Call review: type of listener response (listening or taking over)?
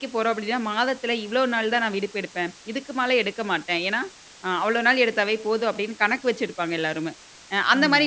listening